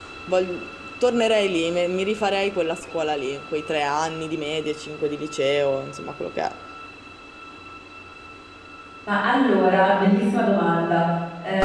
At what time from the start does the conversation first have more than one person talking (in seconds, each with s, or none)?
none